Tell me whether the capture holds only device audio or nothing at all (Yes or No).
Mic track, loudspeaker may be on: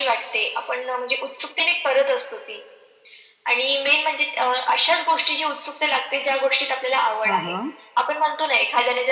No